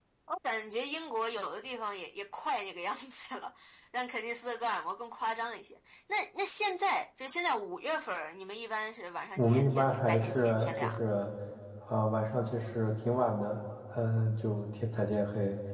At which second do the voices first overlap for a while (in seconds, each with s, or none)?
9.4 s